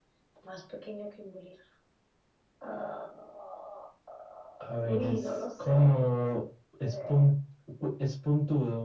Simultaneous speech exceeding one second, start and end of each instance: 4.8-6.1

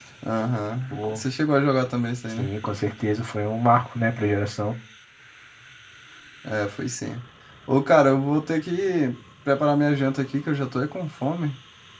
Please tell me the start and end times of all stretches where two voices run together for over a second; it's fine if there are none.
none

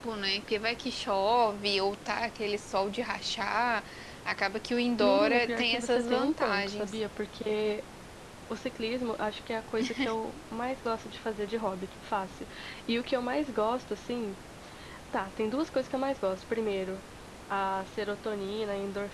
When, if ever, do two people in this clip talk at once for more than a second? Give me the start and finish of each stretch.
5.0-6.9

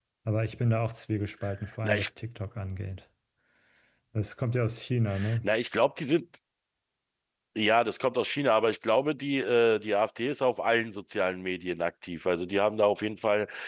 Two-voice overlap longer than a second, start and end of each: none

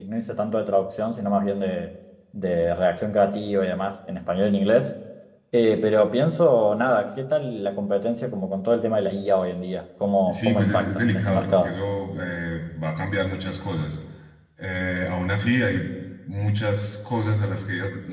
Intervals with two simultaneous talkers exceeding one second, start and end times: 10.3-11.8

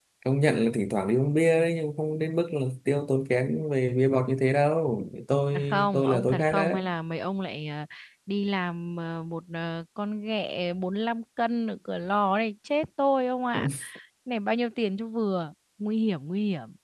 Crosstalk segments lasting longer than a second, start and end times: 5.5-6.8

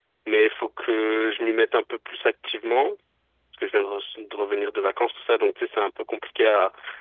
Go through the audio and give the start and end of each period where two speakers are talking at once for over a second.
none

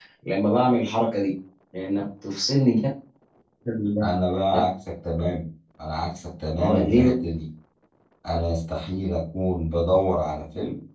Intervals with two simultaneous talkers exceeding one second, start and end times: none

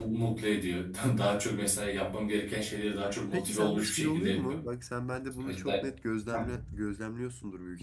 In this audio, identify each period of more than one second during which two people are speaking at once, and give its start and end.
3.3-4.6

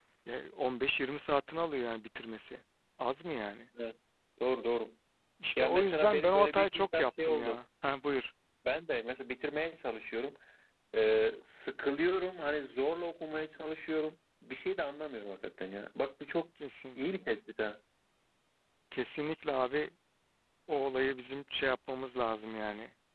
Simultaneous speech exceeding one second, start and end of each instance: 5.6-7.6

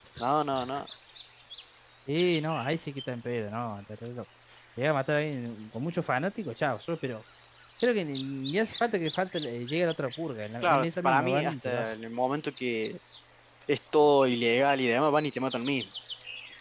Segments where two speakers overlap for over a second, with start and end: 10.6-11.9

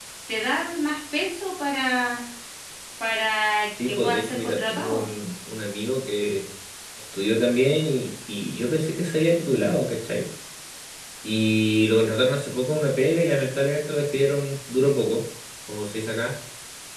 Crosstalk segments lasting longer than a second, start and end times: 3.9-5.1

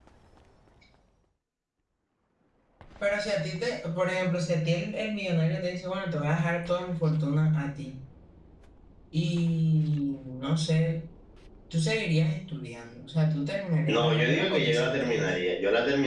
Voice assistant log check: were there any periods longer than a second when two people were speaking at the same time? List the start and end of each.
13.8-15.3

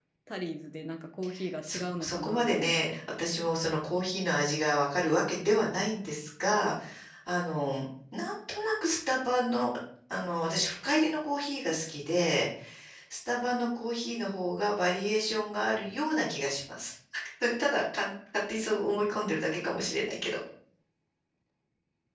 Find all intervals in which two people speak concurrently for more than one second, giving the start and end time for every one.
1.6-3.0

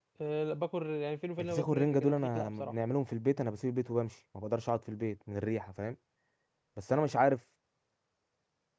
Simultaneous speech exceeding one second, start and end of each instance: 1.4-2.7

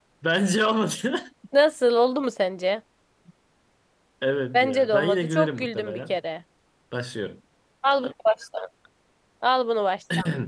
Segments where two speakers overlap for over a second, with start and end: 4.5-6.2

